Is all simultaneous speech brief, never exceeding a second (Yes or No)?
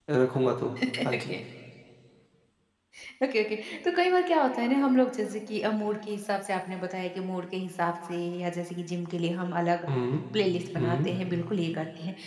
Yes